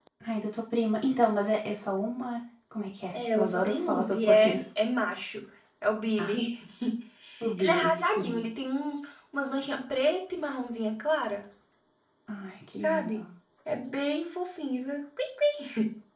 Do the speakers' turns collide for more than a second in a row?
Yes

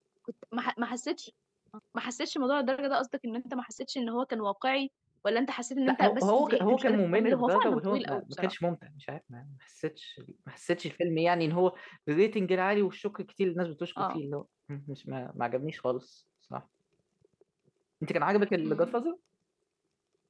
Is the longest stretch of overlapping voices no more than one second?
No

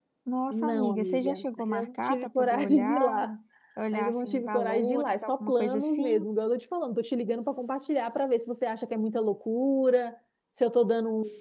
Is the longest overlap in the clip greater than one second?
Yes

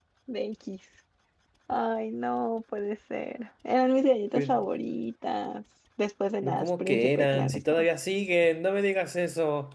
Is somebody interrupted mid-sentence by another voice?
Yes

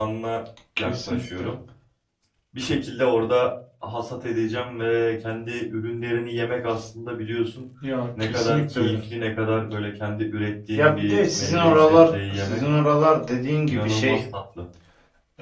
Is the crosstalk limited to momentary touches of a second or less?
No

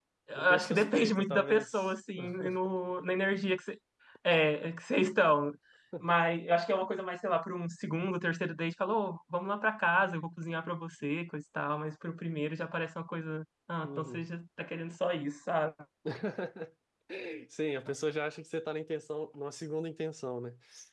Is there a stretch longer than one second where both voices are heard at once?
Yes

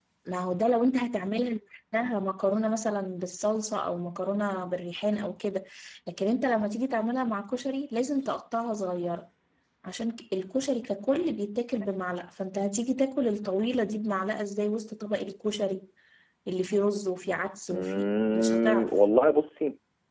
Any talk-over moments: Yes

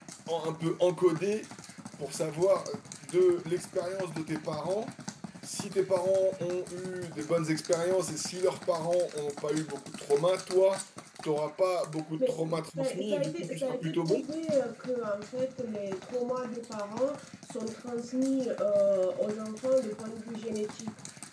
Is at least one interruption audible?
Yes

